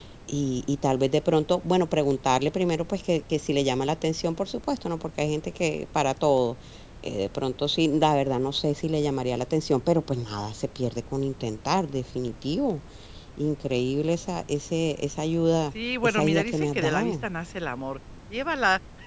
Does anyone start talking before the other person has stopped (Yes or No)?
Yes